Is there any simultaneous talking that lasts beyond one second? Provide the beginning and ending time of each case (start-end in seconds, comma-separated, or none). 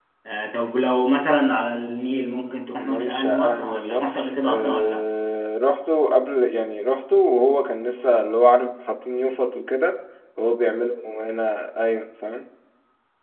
2.8-5.0